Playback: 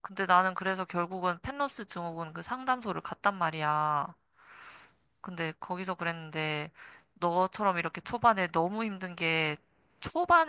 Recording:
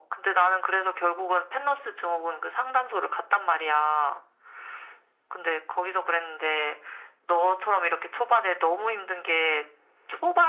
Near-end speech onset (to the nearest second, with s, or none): none